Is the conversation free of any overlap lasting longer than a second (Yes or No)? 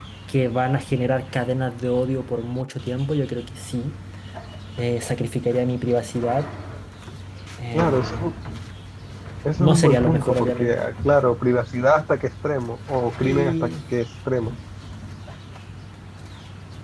No